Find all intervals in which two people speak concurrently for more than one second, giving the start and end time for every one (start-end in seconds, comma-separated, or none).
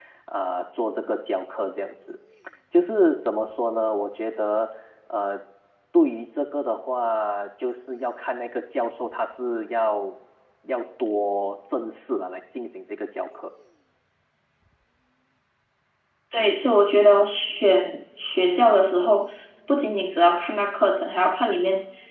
none